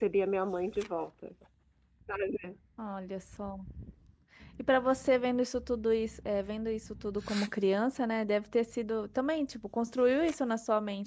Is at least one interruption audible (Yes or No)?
No